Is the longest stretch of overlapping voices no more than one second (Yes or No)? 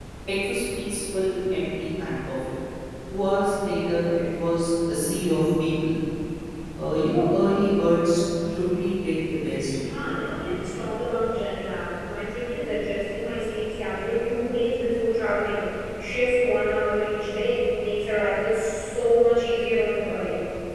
Yes